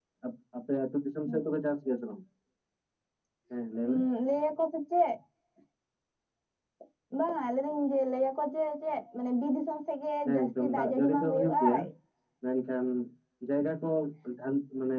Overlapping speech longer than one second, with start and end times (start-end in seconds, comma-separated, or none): 10.3-11.8